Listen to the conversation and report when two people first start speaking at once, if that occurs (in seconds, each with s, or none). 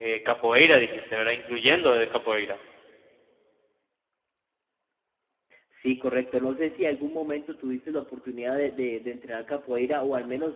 none